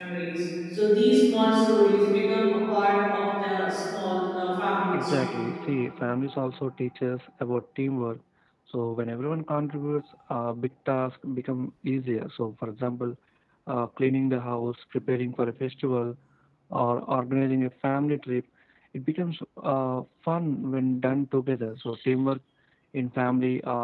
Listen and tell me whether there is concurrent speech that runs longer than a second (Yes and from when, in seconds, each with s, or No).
No